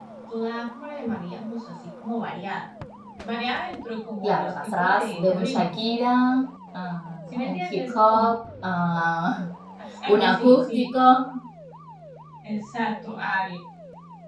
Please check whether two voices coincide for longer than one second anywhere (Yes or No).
Yes